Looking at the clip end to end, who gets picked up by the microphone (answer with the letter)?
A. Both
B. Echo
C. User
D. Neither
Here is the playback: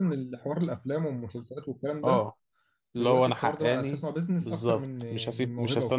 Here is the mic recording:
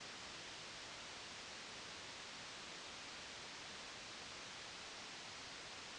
D